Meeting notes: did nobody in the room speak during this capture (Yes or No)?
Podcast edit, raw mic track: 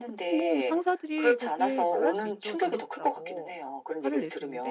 No